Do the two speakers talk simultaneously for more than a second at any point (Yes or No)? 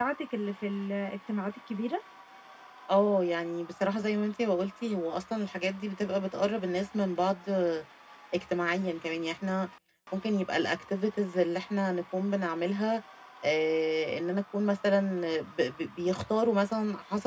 No